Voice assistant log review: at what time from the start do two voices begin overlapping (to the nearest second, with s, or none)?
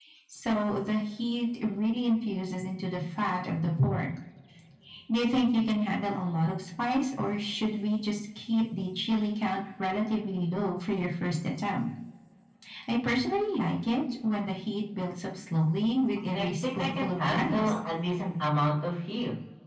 16 s